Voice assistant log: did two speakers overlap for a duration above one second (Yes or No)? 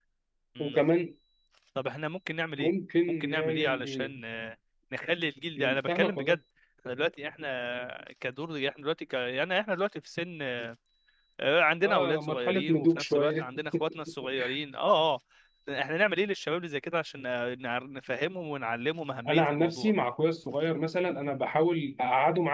Yes